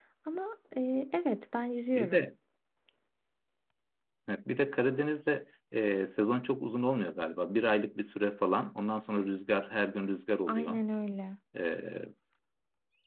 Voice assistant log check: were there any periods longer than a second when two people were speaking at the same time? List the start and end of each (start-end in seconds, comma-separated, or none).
none